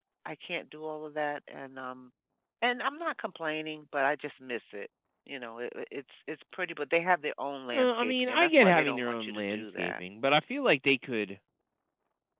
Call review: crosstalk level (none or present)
present